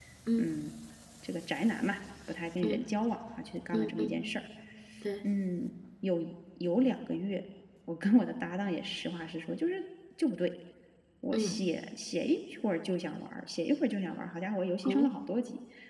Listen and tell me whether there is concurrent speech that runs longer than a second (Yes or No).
No